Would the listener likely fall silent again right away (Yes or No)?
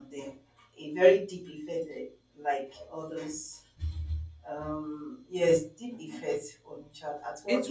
No